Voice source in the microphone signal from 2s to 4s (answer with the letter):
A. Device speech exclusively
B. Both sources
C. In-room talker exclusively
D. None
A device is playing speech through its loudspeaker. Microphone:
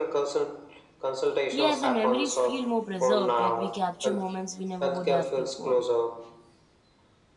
B